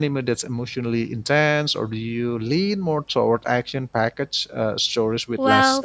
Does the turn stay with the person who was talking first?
No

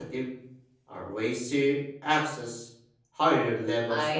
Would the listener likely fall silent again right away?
No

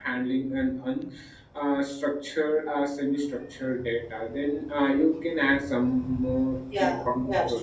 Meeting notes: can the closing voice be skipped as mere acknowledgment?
No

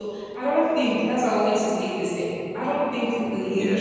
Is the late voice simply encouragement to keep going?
Yes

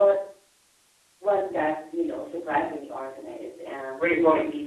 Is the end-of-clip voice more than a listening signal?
Yes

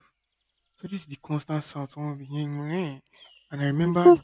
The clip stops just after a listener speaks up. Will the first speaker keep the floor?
Yes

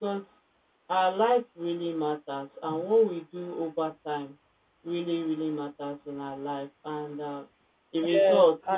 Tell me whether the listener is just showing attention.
Yes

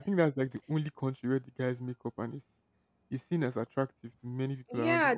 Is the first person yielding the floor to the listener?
Yes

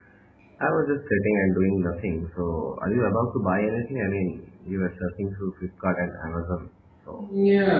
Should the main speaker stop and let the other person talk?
Yes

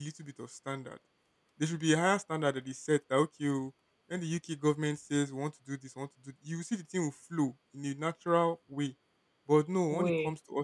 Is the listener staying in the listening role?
Yes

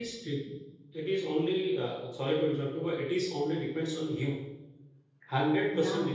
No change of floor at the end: Yes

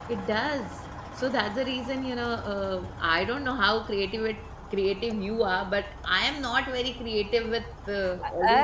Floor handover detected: Yes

